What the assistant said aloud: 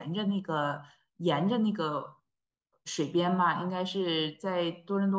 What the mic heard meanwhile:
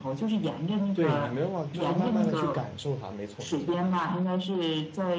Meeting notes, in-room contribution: present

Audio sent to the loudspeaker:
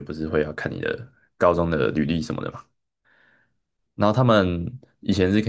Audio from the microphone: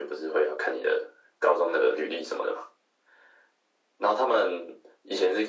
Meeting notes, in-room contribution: none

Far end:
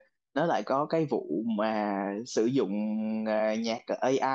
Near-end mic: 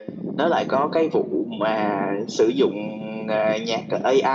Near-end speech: none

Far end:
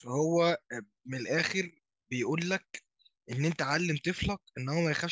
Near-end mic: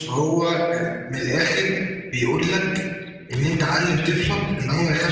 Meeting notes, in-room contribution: none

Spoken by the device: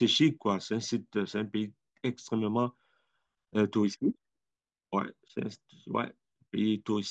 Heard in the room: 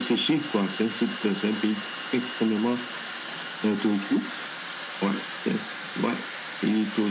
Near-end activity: none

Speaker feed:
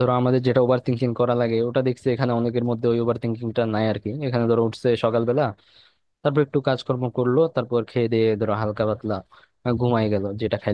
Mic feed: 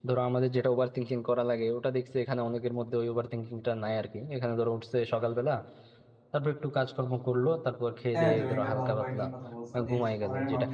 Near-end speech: present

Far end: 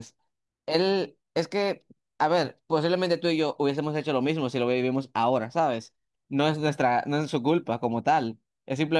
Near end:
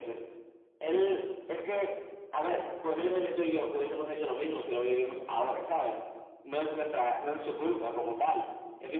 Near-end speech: none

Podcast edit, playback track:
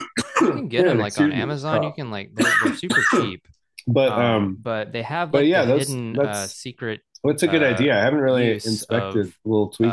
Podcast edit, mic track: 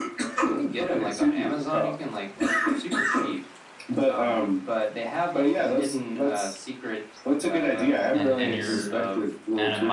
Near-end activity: present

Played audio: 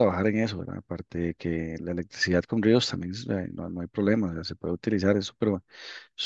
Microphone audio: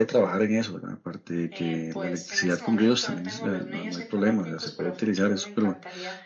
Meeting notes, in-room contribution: present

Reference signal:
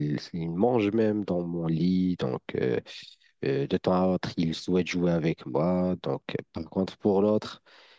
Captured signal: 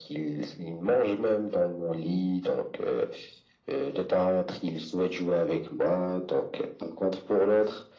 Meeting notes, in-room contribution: none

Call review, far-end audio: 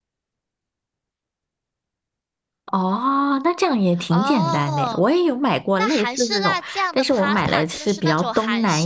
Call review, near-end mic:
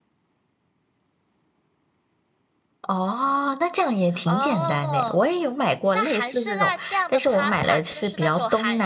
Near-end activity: none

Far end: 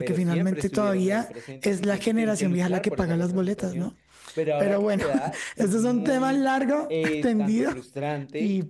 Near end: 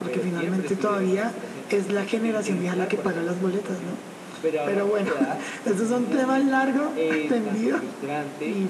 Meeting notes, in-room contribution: none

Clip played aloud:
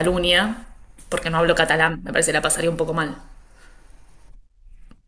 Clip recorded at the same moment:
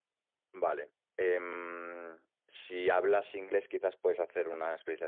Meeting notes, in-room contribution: present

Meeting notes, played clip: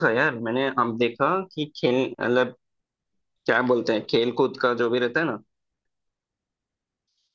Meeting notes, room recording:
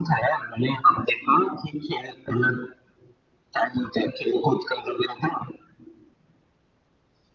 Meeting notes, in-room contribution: none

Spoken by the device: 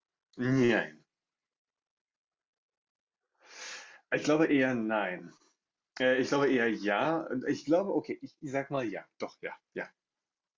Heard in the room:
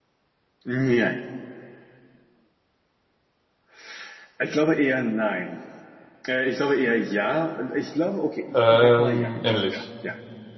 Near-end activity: present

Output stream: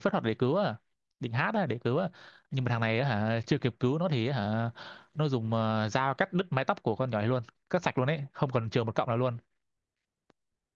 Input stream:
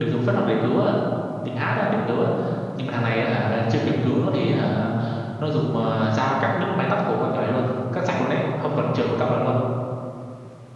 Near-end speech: none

